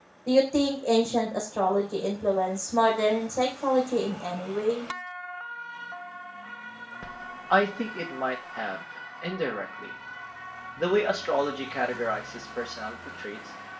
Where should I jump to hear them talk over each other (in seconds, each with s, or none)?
none